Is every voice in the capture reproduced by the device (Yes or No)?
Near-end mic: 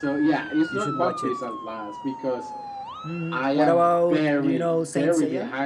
No